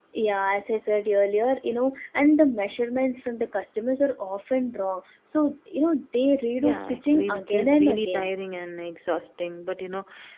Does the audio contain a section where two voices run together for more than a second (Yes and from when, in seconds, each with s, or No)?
Yes, from 6.6 s